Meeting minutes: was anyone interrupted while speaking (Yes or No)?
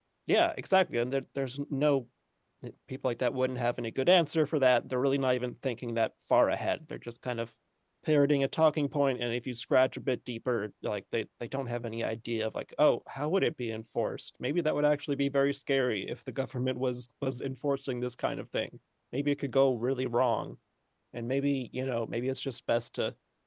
No